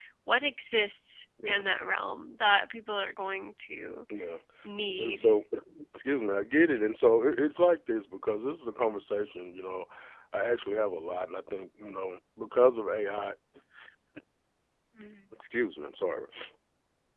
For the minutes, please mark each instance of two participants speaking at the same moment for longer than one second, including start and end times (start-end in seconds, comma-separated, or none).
none